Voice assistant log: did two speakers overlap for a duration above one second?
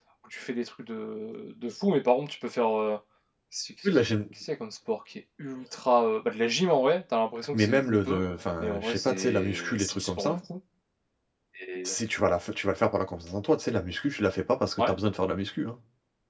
Yes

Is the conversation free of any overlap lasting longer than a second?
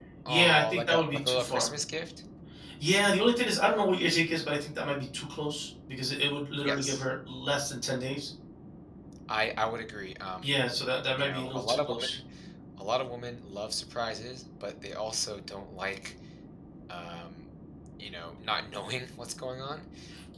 No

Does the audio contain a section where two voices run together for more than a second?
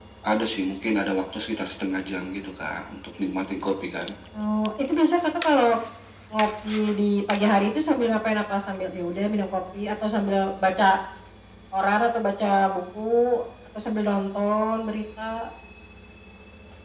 No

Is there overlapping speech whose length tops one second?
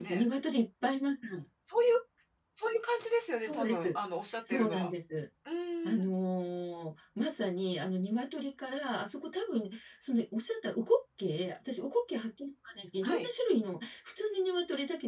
No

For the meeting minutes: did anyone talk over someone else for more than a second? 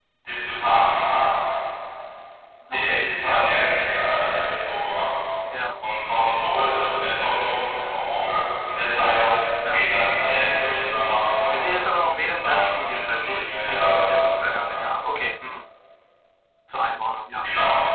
Yes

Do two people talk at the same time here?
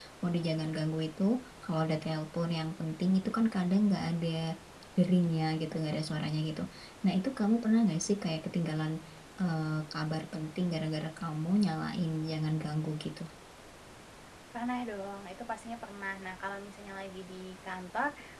No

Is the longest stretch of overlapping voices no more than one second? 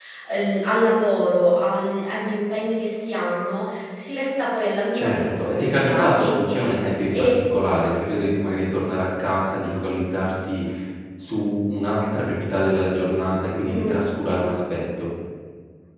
No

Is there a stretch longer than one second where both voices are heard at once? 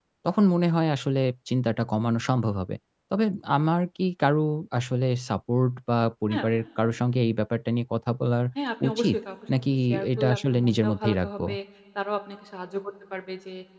Yes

